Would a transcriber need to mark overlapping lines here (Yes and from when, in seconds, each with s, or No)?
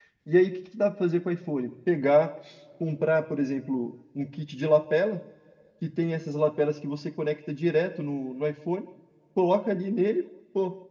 No